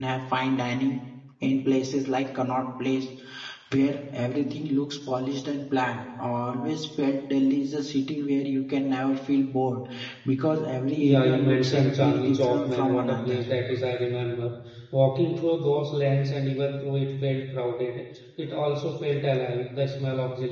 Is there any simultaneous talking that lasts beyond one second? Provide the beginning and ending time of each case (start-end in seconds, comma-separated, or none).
11.0-13.4